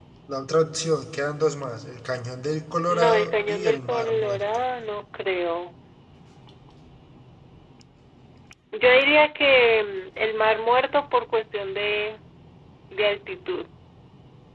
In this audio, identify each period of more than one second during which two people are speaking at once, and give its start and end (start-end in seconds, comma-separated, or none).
2.9-4.7